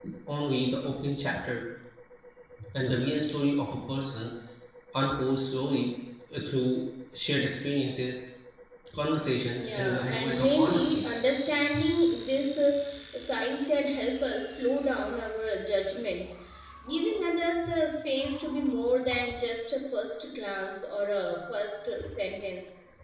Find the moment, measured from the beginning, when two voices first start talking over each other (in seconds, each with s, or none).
9.5 s